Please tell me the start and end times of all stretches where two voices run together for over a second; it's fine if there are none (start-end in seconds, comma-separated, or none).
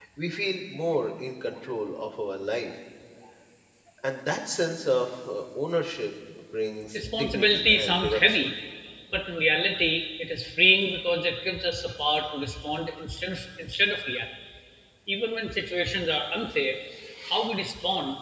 6.9-8.5